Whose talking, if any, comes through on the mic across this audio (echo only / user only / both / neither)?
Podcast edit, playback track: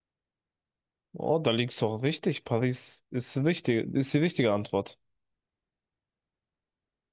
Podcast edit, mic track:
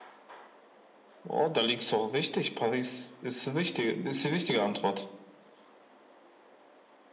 echo only